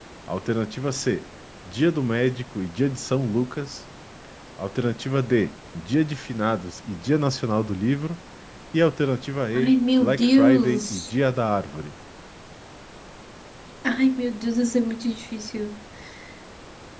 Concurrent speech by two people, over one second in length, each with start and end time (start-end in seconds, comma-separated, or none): 9.5-11.1